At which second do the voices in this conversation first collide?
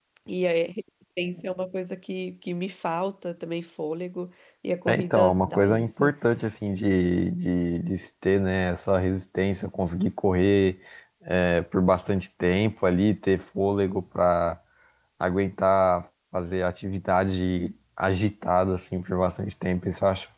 4.9 s

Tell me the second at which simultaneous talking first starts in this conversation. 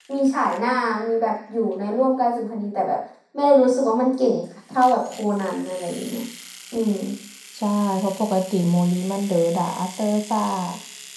none

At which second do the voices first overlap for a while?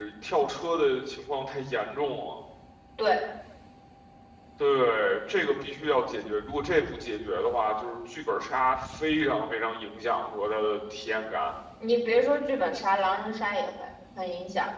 none

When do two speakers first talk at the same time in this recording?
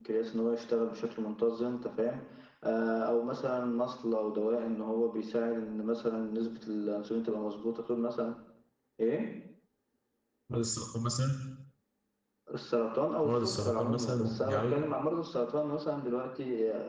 13.2 s

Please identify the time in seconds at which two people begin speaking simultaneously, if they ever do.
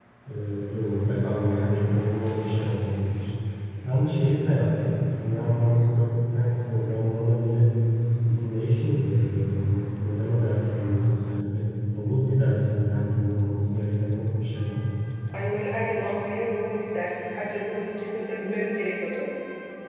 none

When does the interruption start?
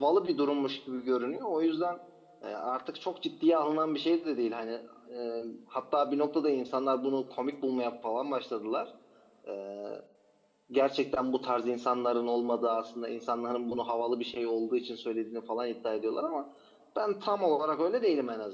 none

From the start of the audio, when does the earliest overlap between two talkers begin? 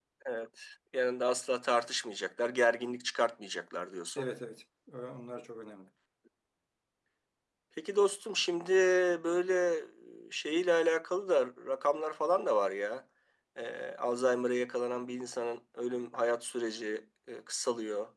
none

